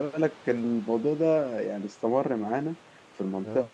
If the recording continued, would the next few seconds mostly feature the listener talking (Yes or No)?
No